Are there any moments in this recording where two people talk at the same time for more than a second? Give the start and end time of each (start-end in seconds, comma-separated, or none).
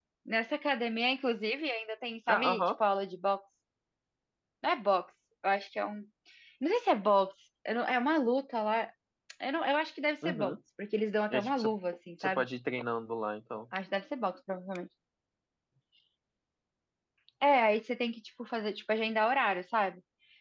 none